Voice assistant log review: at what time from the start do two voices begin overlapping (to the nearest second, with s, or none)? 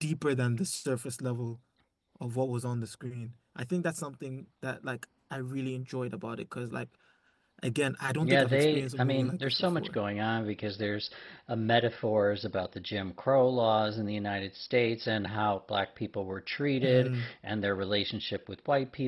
8 s